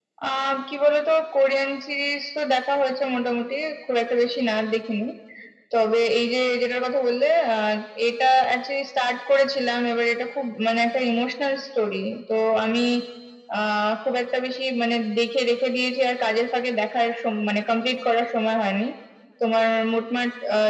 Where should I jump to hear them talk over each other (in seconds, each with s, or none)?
none